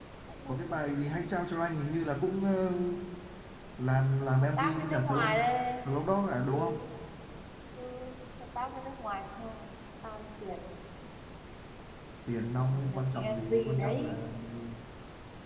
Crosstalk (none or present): present